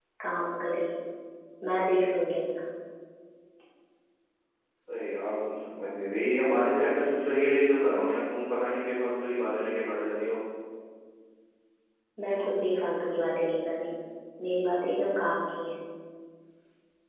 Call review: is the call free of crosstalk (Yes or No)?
Yes